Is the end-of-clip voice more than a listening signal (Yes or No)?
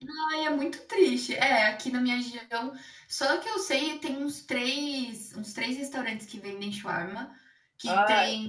No